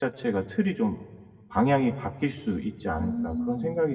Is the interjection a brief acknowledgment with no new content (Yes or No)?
No